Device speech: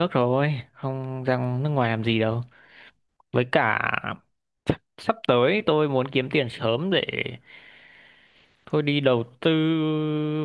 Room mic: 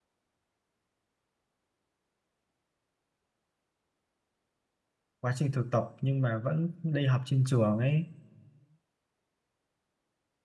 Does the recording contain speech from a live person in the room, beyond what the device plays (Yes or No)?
Yes